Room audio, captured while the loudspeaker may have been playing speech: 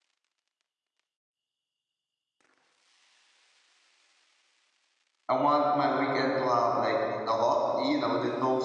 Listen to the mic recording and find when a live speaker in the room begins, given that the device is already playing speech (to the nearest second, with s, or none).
5 s